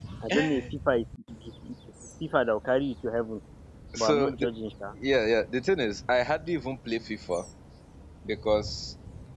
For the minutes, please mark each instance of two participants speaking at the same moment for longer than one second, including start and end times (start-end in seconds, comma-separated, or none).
none